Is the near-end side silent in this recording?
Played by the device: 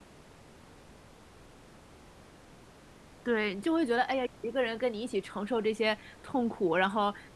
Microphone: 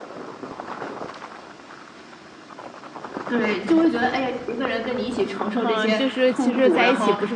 No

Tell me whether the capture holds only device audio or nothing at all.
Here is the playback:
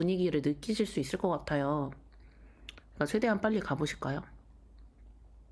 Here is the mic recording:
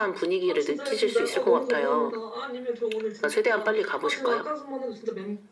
No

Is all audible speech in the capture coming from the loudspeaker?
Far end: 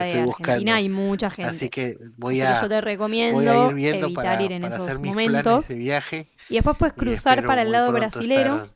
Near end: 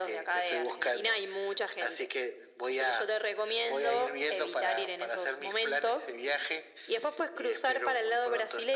Yes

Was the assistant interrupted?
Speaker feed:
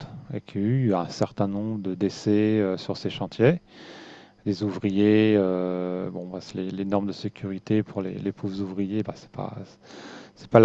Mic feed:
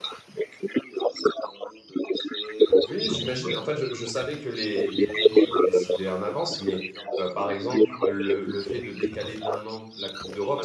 Yes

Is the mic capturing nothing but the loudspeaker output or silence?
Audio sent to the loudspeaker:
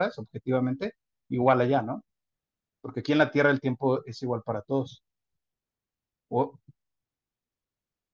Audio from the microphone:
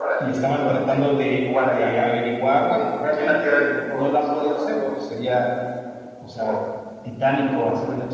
No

